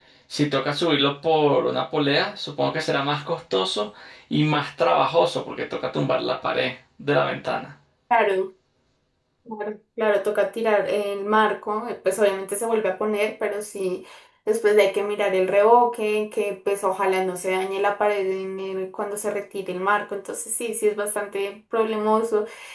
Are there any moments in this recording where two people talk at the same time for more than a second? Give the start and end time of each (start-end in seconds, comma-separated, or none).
none